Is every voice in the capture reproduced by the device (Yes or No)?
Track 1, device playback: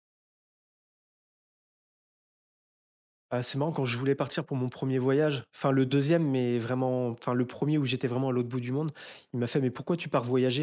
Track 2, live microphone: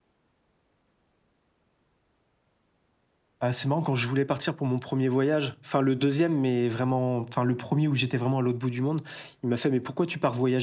Yes